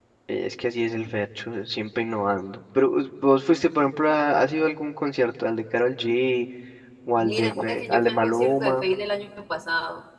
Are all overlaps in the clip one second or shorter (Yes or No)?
No